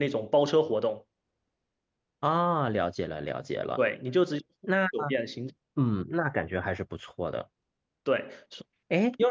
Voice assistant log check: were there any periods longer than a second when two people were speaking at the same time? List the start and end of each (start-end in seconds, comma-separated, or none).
none